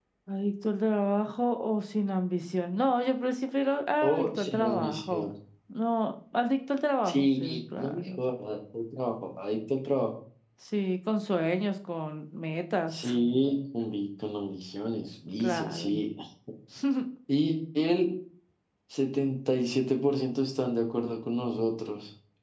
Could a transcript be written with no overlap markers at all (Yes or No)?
No